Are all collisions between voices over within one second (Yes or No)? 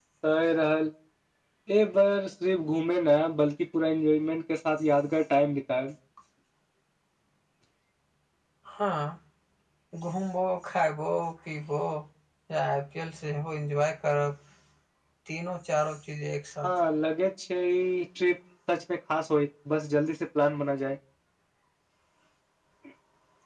Yes